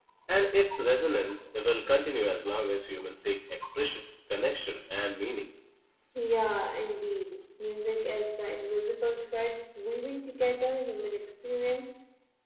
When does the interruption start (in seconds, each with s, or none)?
none